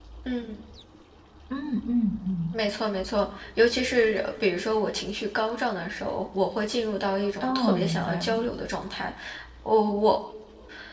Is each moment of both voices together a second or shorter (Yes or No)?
No